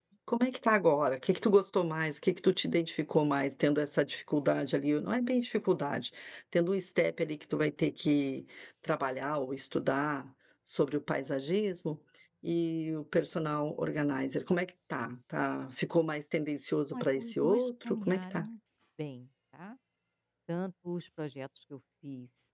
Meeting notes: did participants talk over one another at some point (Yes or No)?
Yes